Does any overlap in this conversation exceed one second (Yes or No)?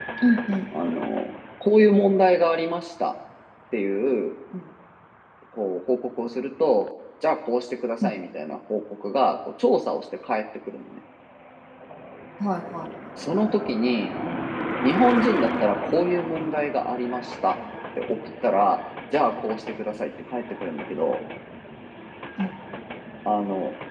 No